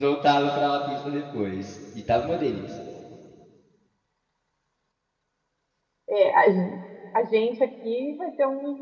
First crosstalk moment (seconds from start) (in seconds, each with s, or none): none